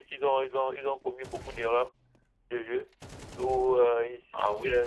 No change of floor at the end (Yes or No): Yes